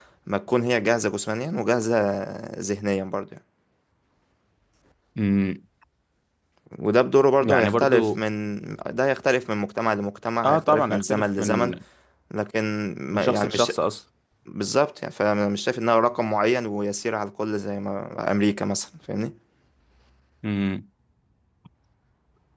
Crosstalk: present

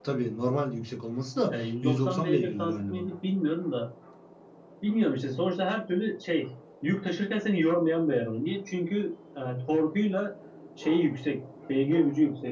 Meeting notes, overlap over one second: present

